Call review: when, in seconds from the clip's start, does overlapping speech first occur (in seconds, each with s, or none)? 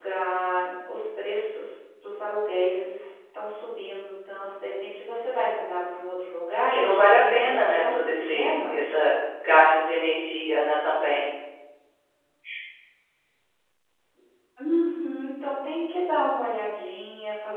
6.7 s